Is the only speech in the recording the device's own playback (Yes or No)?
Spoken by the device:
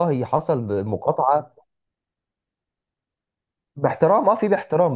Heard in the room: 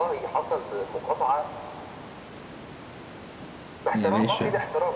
No